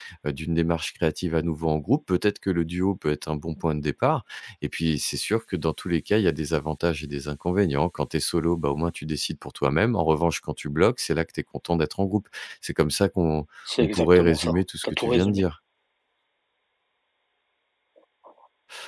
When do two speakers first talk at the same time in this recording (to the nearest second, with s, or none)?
14 s